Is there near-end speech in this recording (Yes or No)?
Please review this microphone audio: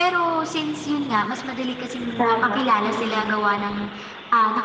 Yes